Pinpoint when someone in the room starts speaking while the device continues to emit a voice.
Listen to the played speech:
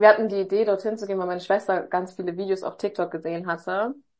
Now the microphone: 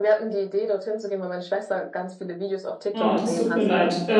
3 s

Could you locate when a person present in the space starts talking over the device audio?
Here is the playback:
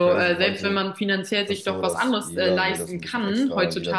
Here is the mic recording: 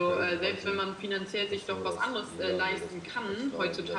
none

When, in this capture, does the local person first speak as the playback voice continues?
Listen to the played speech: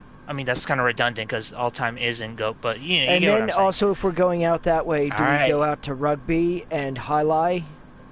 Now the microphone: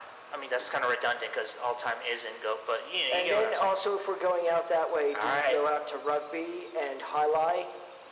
none

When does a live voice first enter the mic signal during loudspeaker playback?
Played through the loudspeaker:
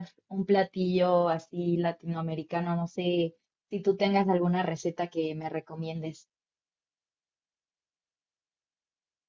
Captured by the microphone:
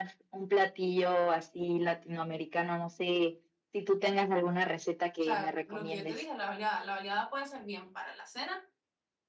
5 s

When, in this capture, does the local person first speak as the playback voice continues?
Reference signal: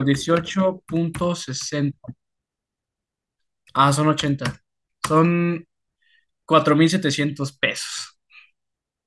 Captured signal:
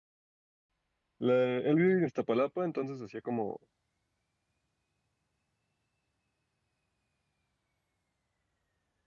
1 s

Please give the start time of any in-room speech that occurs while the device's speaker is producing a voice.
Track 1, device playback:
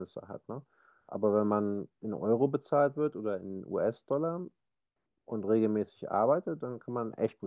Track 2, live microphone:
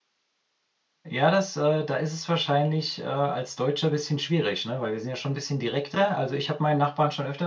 1 s

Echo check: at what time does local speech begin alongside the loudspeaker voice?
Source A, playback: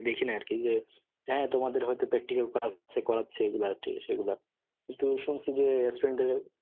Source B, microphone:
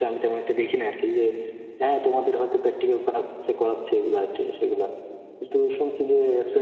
none

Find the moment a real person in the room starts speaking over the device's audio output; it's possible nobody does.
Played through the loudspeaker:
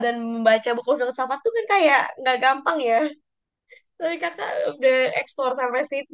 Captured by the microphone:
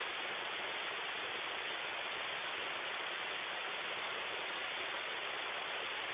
none

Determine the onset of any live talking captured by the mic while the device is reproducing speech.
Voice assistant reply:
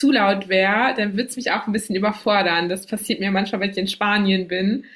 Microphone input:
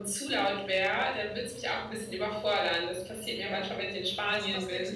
3 s

